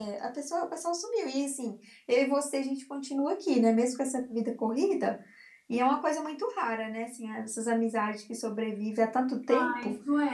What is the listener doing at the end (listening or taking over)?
taking over